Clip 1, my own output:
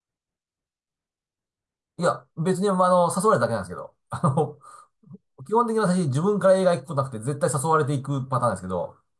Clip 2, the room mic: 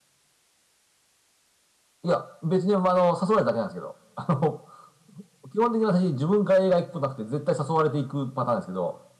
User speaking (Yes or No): No